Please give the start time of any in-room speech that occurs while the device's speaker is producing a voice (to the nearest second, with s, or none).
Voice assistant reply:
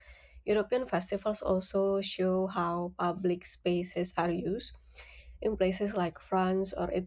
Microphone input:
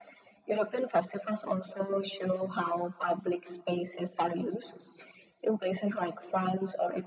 none